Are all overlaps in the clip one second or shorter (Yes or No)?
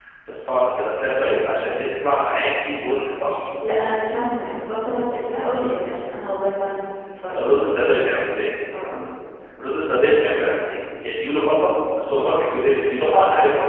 Yes